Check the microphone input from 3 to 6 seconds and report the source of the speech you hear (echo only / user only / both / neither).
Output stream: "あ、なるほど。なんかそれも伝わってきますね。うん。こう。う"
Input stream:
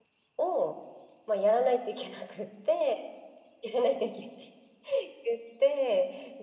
user only